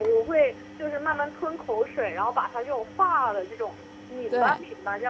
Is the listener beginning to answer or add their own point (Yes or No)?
No